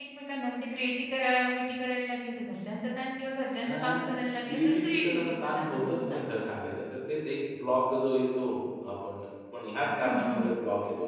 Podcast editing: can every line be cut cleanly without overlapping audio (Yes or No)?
No